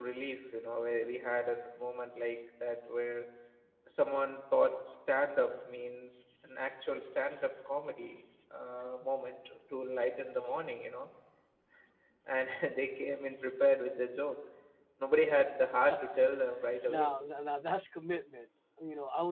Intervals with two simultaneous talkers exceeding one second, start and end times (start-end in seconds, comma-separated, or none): none